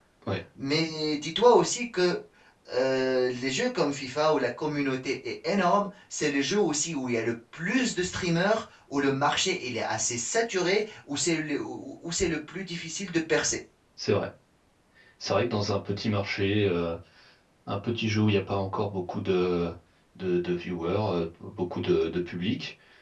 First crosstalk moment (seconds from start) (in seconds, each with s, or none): none